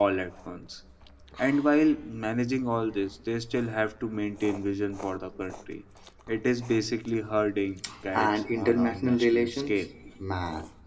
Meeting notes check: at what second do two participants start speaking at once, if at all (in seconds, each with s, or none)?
8.1 s